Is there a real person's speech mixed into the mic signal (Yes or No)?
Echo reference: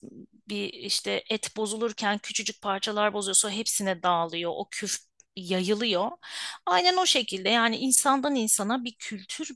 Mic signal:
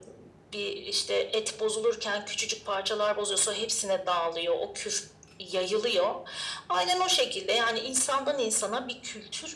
No